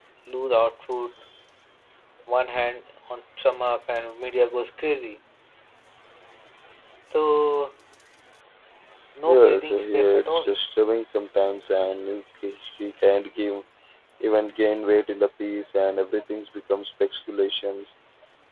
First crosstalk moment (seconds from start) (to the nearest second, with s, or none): 9 s